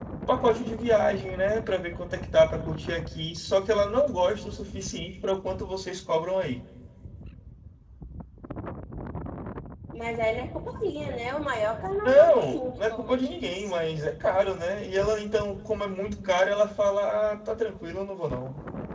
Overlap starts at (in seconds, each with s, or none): 12.0 s